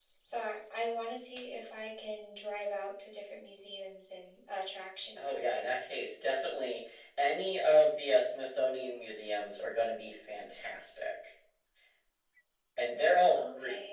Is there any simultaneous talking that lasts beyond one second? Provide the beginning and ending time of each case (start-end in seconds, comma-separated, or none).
none